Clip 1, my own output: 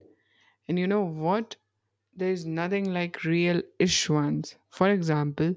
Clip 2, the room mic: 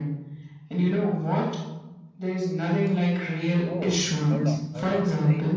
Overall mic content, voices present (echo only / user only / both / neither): both